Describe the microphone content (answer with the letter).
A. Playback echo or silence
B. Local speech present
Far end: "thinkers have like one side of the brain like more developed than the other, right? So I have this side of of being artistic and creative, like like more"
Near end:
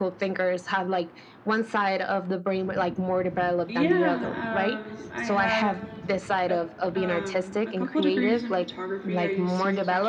B